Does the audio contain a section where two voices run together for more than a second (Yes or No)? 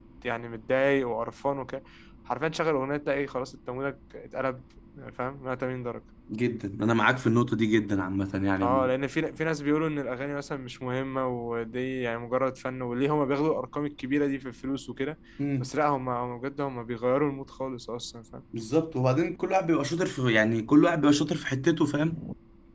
No